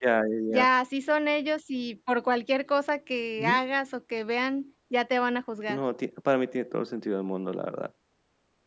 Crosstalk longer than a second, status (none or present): none